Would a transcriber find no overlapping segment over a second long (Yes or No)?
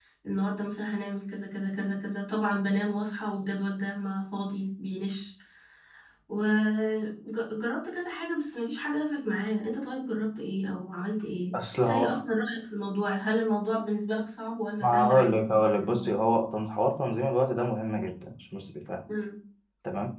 No